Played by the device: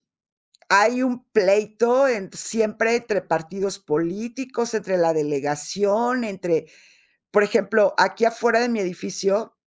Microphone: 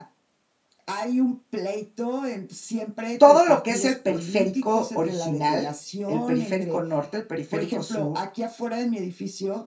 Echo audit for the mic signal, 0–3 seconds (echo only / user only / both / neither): echo only